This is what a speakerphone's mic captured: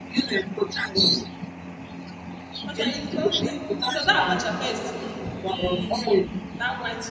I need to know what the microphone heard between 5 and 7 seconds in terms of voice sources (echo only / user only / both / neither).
both